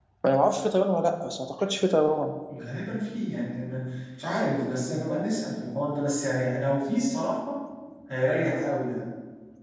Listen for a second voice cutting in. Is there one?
No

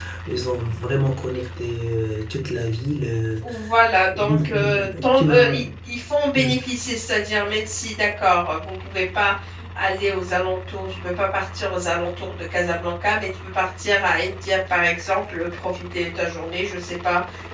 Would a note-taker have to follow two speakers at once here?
Yes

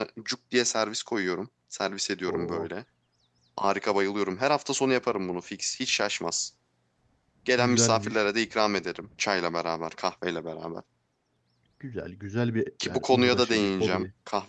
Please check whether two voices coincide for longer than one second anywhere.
Yes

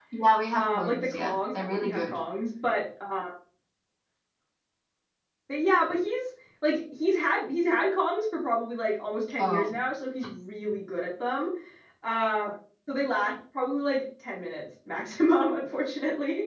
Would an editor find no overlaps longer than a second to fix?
No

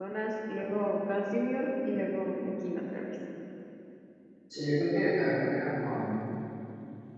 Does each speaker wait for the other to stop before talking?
Yes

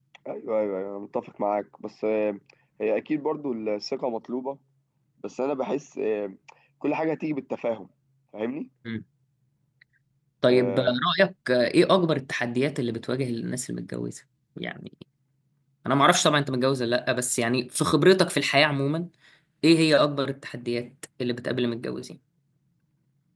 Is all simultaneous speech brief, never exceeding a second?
Yes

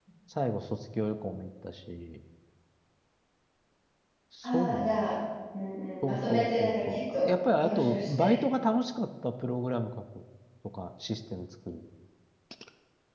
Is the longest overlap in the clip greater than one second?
Yes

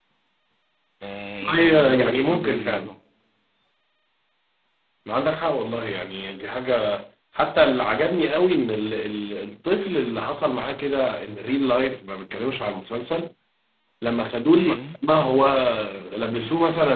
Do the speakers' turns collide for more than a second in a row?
Yes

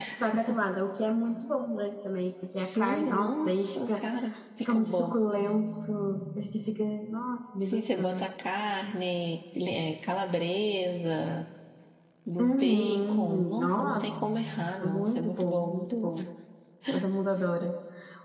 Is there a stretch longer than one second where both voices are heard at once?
Yes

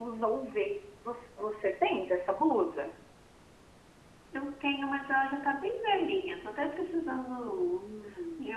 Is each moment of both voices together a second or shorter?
Yes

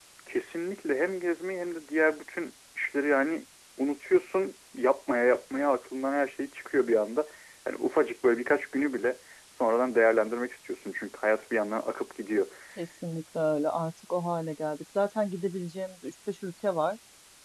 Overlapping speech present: No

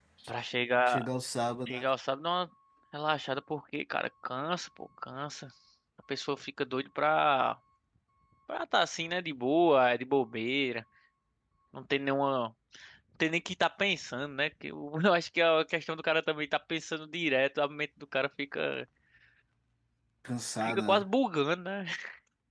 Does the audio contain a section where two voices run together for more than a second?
No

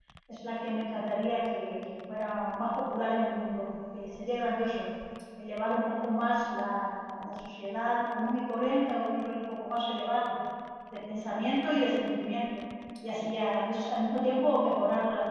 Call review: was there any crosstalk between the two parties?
No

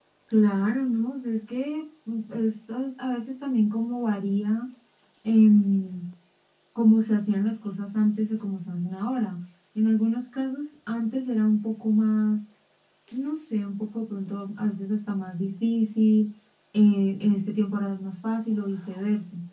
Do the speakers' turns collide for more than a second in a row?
No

